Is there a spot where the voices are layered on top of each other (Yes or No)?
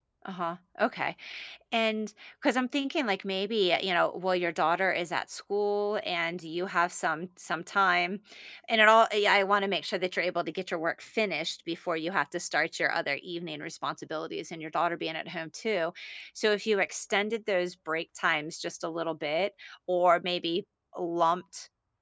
No